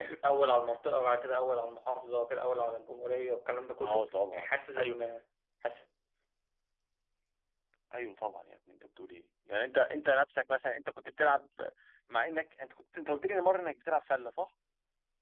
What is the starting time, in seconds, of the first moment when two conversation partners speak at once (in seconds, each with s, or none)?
3.8 s